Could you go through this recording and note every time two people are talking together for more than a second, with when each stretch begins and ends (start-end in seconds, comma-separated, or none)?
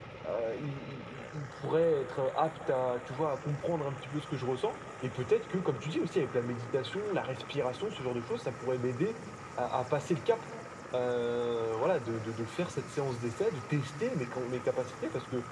none